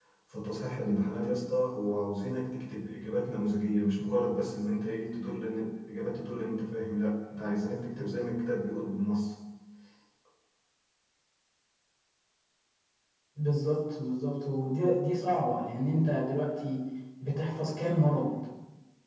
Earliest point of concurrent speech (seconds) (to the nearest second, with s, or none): none